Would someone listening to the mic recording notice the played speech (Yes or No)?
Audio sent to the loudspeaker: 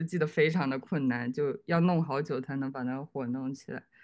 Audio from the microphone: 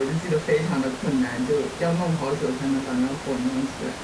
Yes